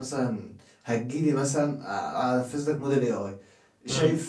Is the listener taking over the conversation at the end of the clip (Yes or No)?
No